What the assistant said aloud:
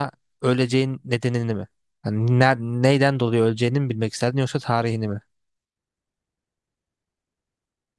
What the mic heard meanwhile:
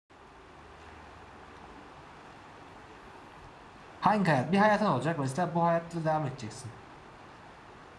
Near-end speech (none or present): present